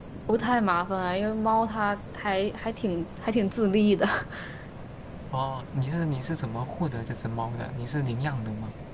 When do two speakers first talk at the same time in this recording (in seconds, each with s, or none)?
none